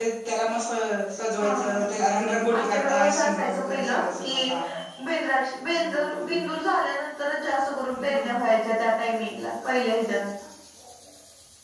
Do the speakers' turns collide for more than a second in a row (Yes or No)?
Yes